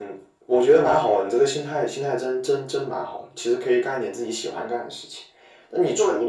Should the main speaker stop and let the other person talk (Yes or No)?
No